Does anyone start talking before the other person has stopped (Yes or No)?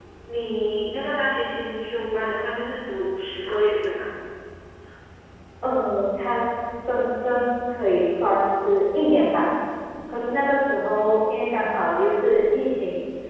No